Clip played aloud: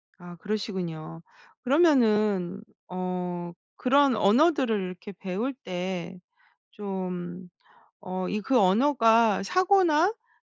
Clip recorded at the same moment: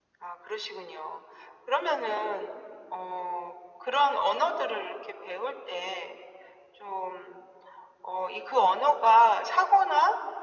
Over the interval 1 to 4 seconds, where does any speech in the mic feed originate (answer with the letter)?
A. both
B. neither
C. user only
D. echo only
D